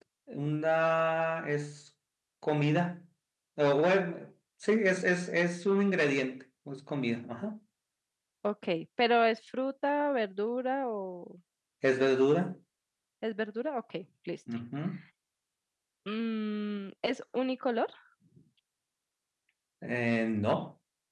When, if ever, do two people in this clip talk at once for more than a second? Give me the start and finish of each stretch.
none

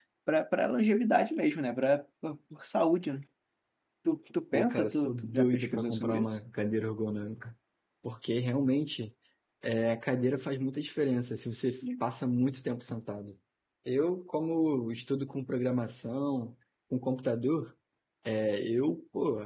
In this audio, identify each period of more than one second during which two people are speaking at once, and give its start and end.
4.5-6.4

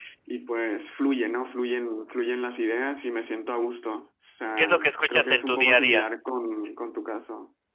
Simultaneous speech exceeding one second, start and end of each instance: 4.6-6.0

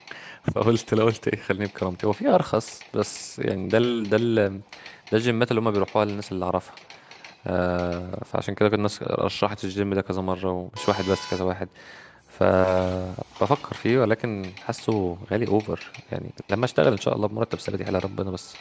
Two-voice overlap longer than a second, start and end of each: none

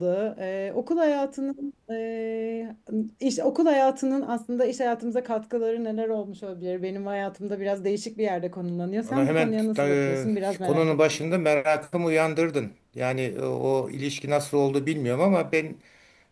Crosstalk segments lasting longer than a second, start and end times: 9.0-11.2

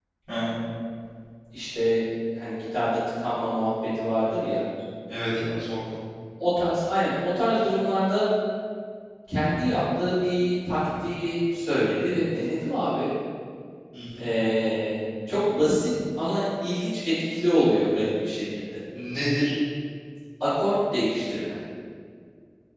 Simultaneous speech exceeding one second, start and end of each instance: none

